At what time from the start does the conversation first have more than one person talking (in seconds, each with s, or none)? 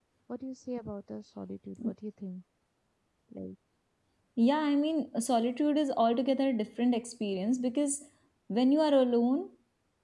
none